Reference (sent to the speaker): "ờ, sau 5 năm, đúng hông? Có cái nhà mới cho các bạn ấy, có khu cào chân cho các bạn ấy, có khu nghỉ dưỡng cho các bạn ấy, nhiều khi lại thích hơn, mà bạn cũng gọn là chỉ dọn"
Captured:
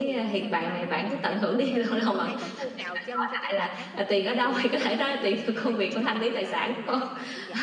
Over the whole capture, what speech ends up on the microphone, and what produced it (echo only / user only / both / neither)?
both